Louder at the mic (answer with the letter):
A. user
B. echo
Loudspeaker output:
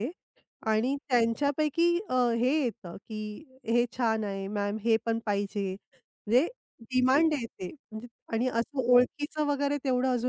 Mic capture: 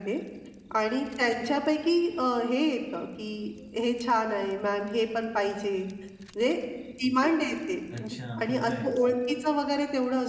B